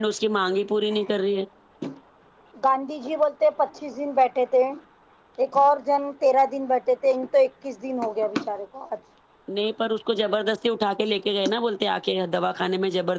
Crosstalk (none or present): none